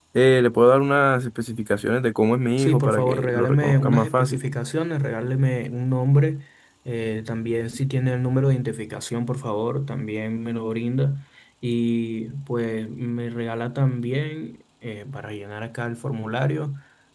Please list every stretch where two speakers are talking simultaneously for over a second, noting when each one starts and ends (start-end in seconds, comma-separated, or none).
2.6-4.4